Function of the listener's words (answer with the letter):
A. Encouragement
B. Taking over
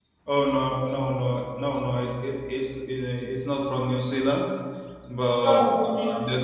A